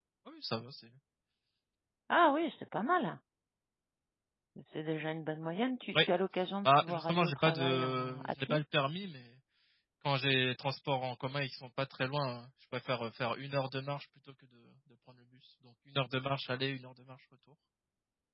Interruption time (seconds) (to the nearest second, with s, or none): 7 s